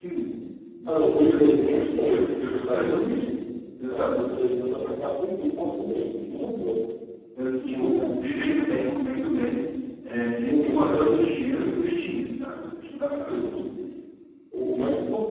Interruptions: present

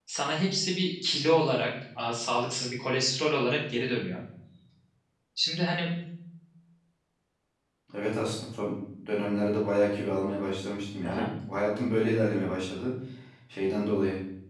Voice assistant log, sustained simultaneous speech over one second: none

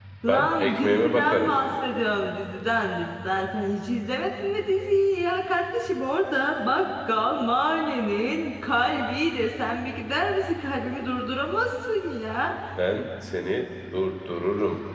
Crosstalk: present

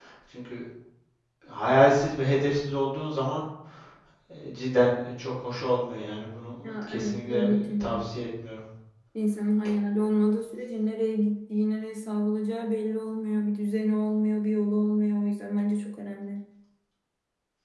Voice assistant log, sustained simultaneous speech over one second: present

